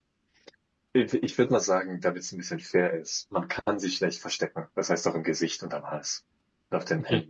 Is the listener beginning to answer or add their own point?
Yes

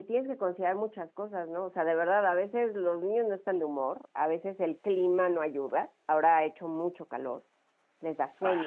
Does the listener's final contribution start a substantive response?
No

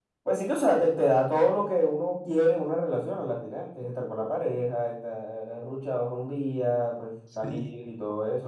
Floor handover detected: No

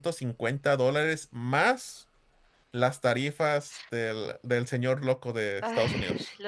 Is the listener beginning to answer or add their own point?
Yes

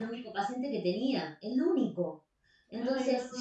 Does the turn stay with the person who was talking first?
Yes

